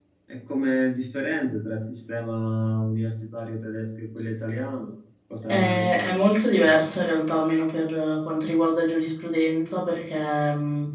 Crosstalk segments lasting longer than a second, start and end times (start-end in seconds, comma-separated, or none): 5.5-6.8